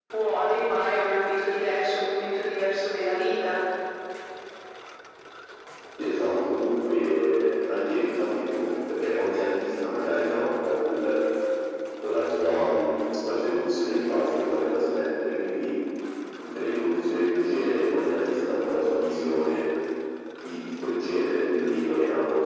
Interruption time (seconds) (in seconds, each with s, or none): none